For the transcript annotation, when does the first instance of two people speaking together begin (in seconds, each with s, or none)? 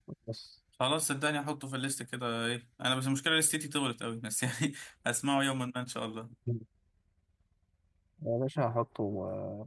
none